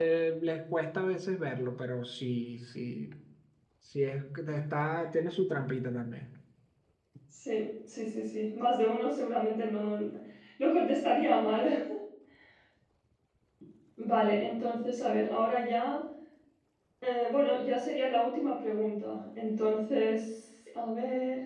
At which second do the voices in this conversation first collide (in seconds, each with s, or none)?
none